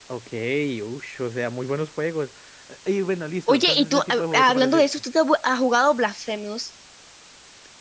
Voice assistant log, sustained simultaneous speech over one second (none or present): present